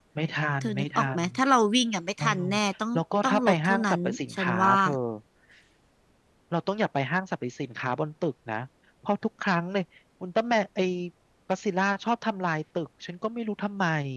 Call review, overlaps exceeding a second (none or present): present